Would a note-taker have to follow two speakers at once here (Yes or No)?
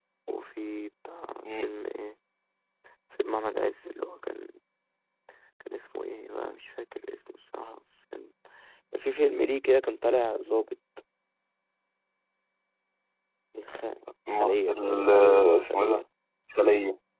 Yes